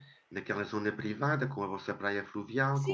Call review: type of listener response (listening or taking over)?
taking over